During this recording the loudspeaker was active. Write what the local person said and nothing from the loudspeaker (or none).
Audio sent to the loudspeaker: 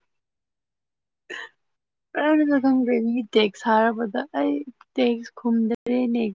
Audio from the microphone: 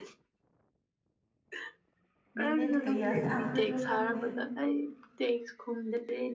ꯃꯦꯅꯦꯠ ꯀꯌꯥ ꯁꯥꯡꯈ꯭ꯔꯁꯨ ꯈꯪꯗꯦ